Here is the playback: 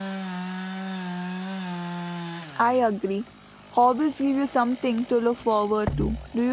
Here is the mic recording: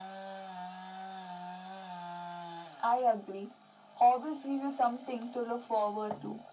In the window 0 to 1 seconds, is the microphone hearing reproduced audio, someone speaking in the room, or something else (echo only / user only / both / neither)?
neither